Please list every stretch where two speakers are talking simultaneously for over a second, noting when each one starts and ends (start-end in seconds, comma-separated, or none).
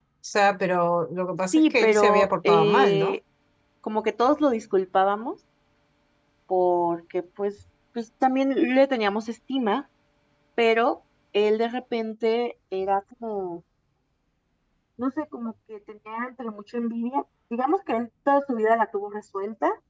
1.5-3.1